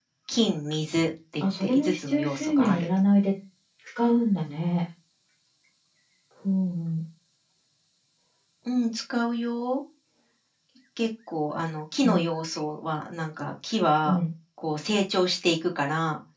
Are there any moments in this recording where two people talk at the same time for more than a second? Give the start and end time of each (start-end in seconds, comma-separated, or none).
1.4-2.9